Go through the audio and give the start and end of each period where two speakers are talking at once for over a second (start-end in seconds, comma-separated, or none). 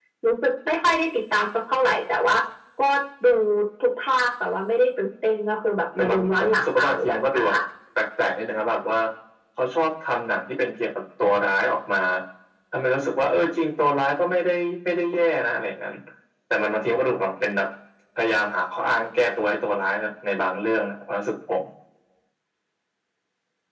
6.0-7.5